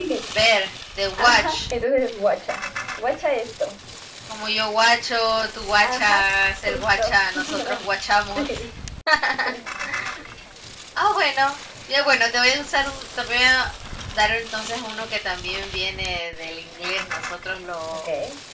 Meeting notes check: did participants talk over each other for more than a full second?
No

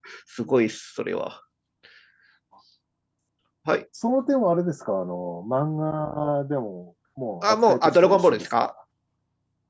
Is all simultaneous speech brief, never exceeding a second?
No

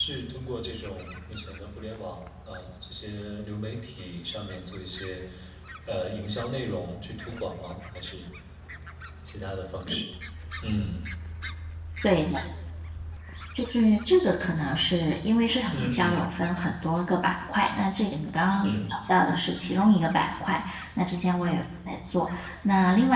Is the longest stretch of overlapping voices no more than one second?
Yes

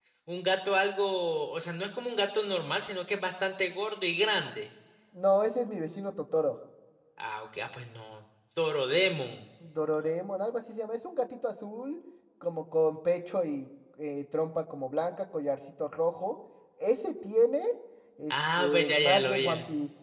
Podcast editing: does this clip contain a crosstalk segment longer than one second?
Yes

